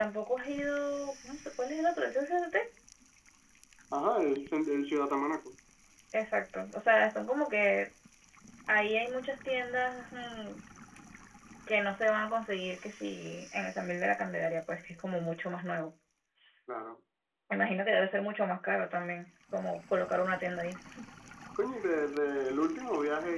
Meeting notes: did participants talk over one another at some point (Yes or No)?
No